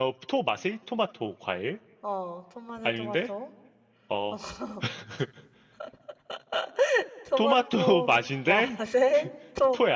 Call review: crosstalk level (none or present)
present